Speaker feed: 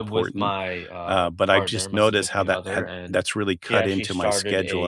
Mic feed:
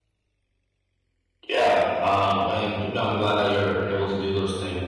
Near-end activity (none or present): present